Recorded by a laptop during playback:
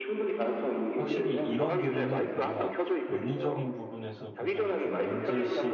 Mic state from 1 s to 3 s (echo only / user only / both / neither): both